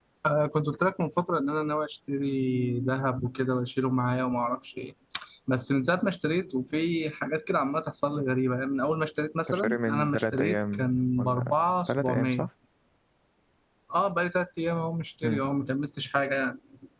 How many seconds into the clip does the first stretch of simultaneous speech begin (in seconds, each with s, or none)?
9.5 s